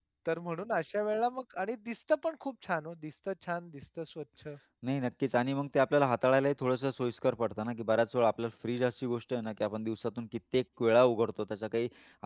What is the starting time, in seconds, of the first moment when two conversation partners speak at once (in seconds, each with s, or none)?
none